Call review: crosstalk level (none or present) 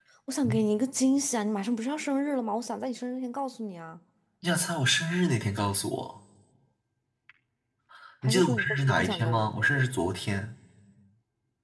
present